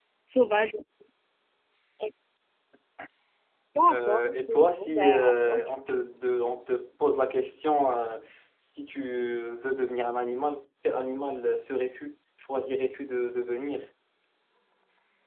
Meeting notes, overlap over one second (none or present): present